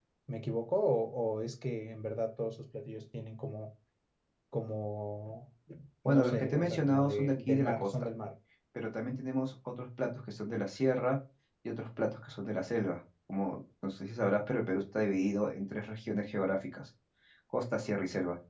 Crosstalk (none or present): present